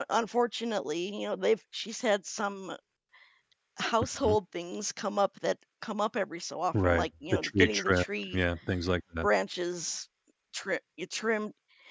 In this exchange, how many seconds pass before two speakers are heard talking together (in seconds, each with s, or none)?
6.7 s